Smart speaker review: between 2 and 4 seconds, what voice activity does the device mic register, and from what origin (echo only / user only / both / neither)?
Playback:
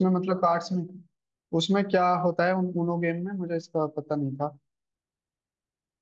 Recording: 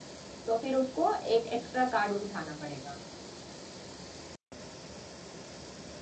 user only